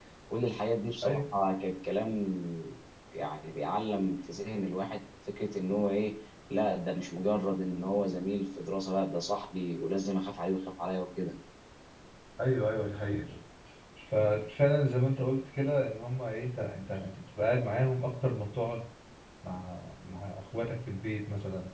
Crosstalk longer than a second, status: none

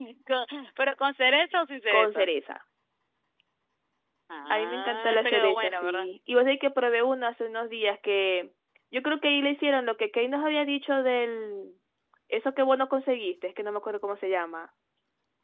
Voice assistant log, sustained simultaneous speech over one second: present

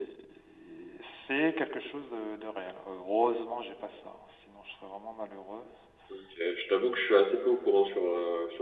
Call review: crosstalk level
none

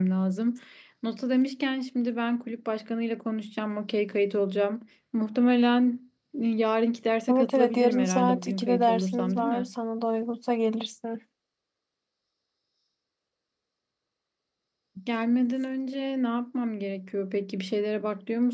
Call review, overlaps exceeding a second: present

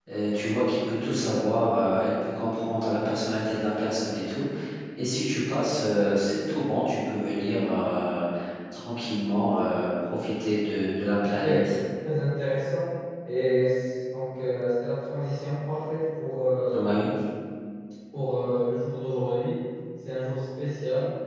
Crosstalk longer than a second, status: none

